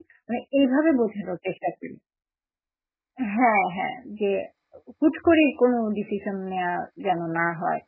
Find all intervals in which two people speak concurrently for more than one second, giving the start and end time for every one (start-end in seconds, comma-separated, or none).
none